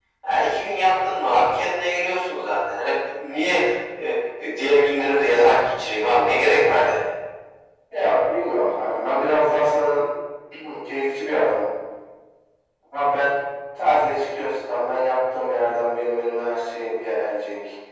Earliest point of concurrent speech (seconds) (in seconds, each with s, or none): none